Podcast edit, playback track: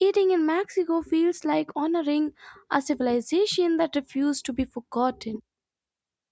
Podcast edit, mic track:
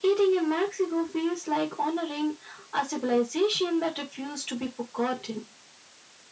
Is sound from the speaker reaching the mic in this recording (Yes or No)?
Yes